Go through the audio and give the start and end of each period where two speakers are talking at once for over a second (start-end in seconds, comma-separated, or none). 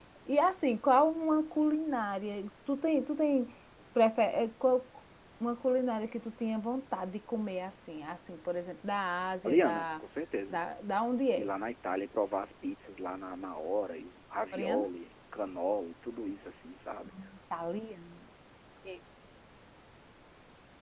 none